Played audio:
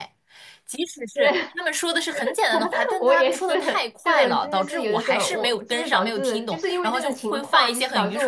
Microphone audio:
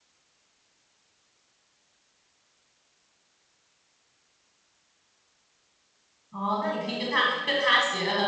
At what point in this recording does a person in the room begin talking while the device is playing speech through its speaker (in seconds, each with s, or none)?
6.3 s